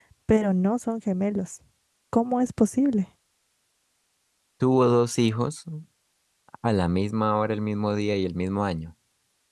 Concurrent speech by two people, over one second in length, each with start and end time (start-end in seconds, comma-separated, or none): none